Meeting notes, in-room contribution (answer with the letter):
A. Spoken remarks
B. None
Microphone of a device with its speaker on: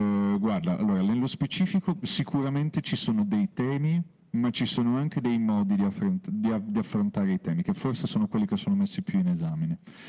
B